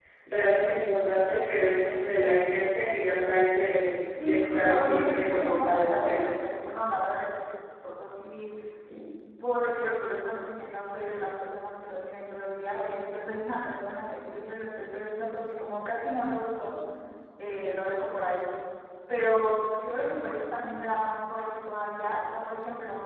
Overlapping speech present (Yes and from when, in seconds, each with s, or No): Yes, from 4.2 s